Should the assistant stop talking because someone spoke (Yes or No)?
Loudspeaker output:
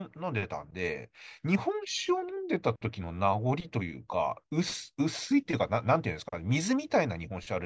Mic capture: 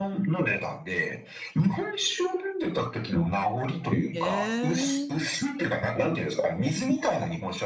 Yes